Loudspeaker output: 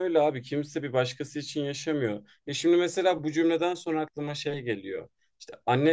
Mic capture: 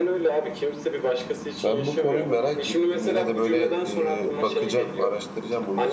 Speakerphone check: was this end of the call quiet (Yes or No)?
No